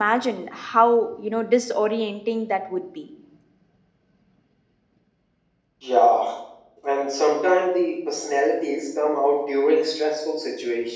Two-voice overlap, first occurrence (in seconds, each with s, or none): none